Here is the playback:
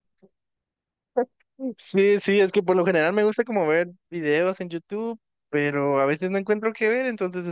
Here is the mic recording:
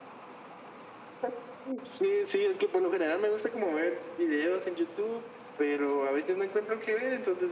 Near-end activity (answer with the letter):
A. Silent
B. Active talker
A